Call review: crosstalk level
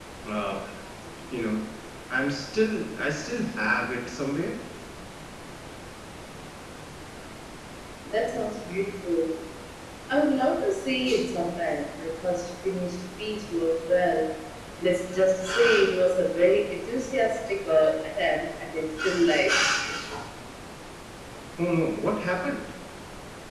none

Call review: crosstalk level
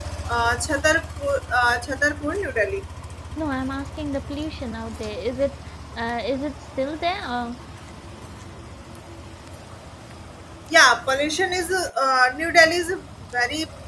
none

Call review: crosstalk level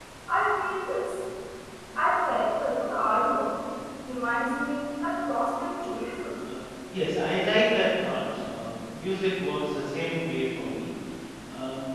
none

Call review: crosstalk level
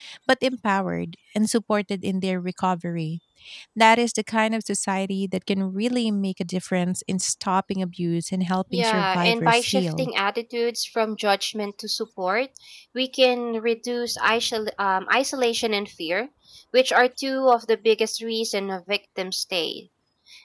present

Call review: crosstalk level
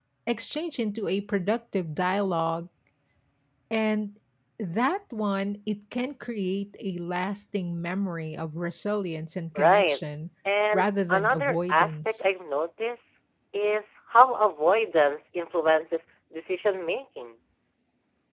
present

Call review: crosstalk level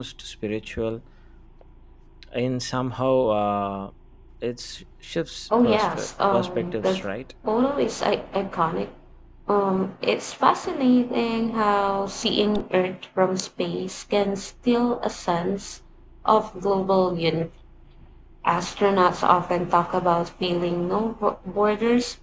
present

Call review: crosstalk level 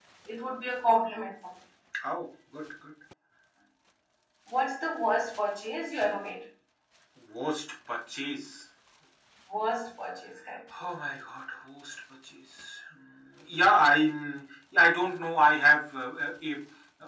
none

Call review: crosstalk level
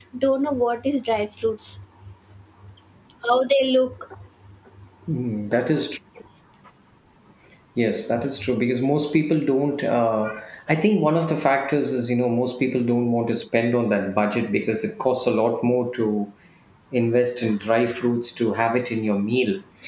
none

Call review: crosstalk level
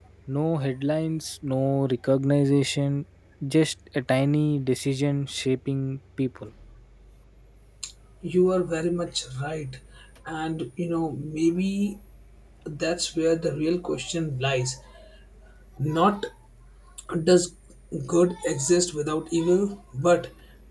none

